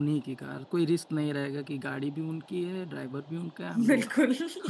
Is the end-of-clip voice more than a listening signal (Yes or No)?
No